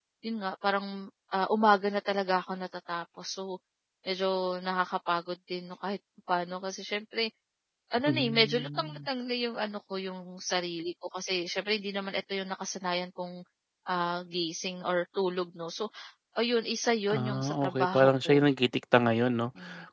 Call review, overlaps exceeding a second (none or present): present